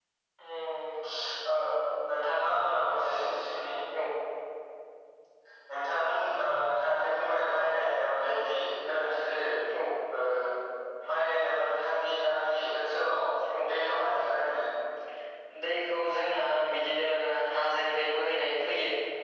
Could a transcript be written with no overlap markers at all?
Yes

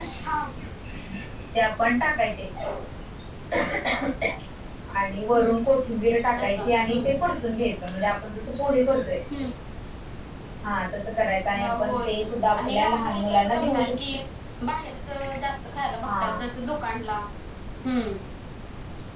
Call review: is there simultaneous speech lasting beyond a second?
Yes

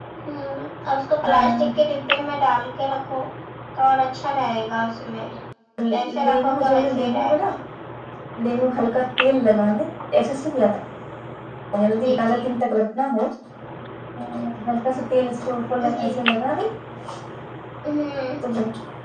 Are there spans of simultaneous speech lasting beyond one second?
Yes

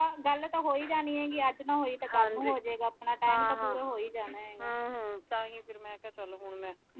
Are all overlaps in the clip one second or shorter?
Yes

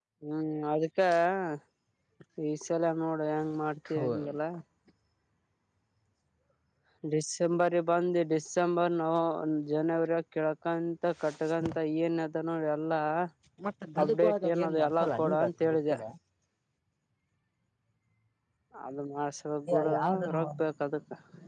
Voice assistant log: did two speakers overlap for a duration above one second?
Yes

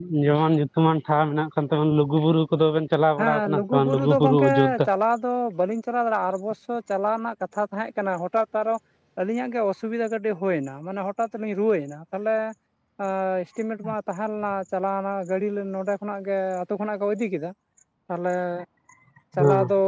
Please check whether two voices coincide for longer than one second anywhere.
Yes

